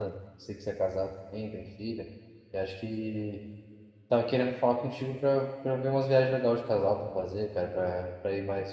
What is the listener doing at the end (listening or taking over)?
listening